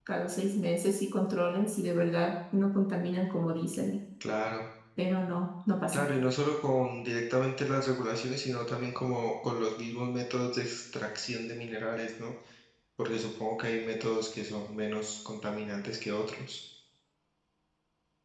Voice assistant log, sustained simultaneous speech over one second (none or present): none